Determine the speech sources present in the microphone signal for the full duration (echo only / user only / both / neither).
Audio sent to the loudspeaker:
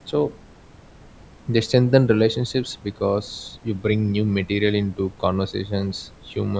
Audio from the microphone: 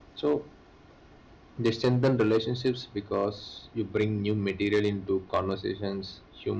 echo only